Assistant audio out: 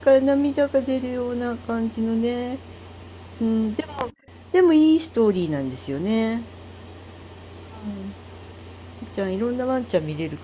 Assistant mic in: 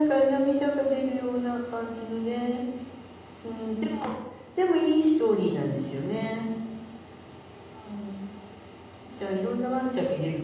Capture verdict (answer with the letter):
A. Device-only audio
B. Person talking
A